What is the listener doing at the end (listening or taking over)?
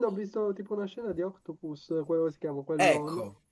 taking over